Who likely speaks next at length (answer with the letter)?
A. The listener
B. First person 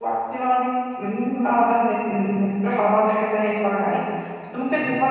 B